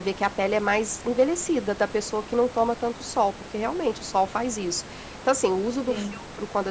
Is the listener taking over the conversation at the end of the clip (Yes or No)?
No